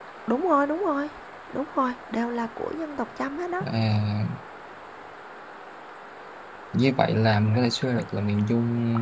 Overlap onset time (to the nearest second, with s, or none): none